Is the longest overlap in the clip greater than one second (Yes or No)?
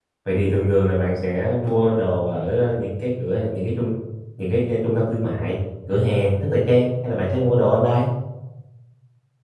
No